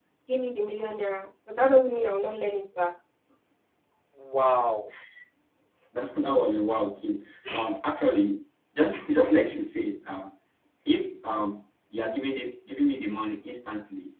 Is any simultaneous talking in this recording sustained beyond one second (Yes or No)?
No